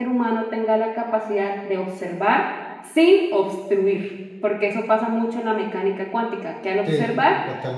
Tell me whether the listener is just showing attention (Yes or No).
No